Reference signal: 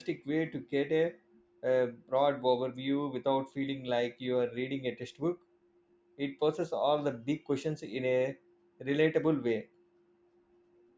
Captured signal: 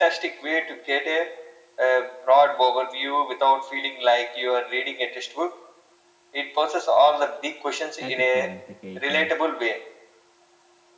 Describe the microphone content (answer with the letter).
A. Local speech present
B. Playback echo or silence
A